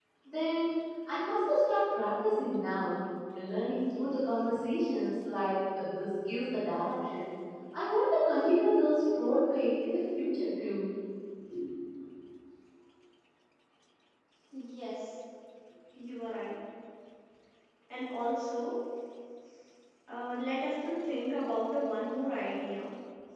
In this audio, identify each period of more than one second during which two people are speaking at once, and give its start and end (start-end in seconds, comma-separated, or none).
none